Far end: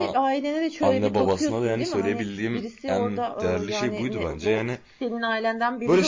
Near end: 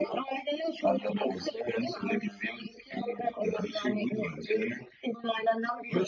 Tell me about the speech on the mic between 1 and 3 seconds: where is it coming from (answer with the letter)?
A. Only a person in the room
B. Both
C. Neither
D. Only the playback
D